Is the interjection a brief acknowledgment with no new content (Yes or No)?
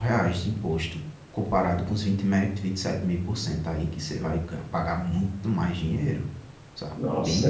No